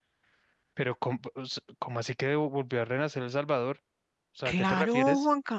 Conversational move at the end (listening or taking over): taking over